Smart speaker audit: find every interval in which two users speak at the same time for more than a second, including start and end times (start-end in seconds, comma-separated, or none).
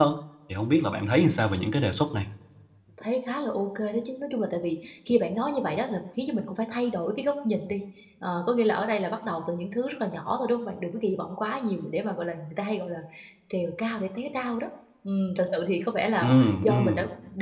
none